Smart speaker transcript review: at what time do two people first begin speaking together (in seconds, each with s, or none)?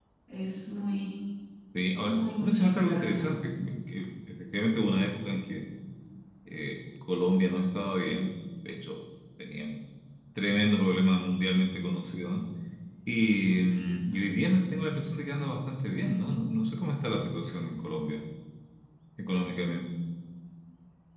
2.1 s